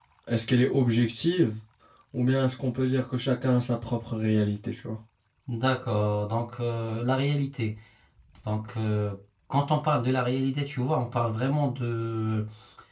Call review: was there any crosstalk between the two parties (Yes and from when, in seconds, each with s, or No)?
No